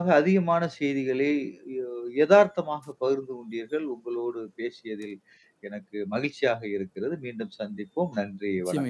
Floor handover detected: Yes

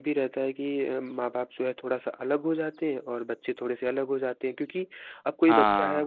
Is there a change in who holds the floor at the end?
No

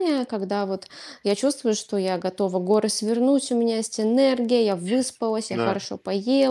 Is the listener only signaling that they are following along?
Yes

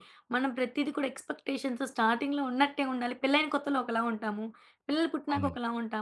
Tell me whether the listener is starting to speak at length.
No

